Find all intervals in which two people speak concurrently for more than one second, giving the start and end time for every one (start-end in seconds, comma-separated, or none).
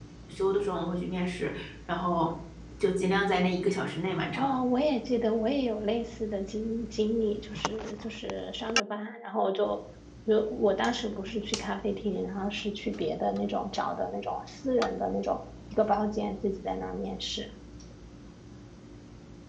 none